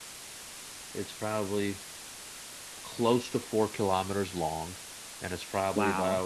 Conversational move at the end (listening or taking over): listening